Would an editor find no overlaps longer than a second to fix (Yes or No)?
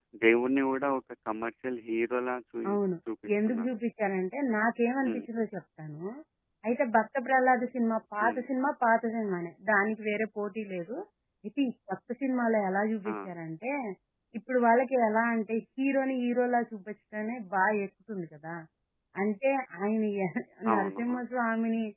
Yes